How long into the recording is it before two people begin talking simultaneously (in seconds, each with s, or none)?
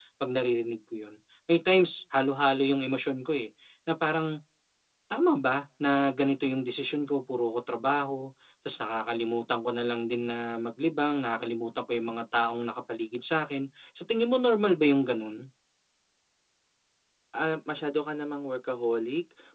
none